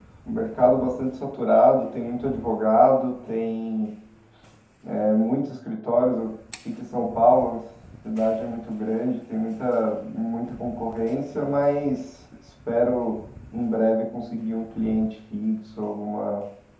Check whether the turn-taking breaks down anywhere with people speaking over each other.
No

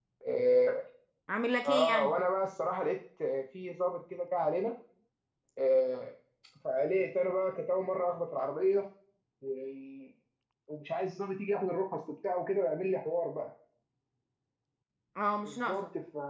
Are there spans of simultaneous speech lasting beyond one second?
No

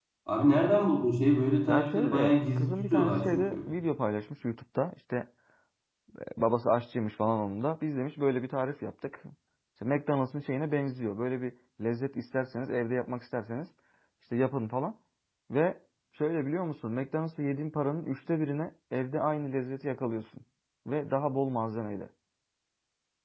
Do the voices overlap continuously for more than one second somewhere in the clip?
Yes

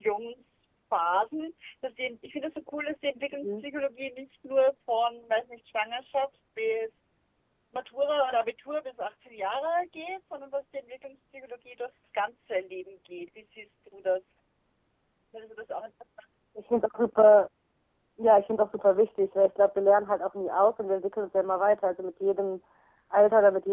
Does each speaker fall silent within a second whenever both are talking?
Yes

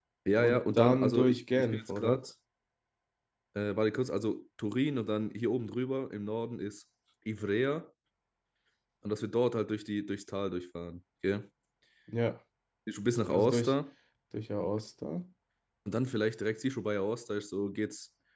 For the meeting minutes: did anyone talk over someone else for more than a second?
Yes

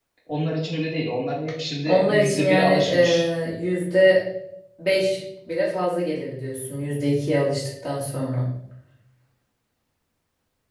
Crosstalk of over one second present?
Yes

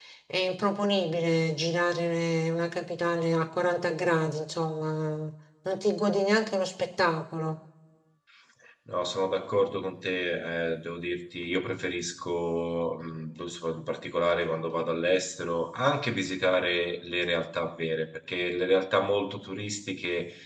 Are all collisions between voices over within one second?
Yes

